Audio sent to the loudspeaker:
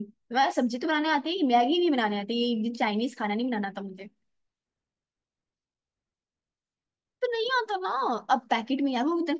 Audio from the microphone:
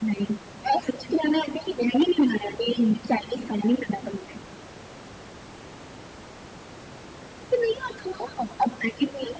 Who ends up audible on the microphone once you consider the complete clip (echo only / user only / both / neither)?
echo only